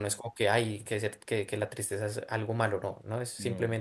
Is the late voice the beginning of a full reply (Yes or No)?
No